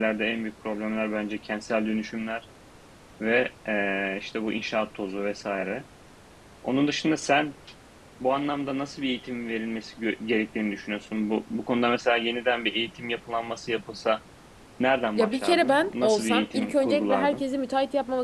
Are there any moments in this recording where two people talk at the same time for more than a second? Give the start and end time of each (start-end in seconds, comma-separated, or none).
15.2-17.4